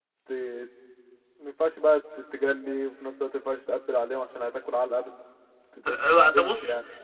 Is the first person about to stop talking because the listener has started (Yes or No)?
Yes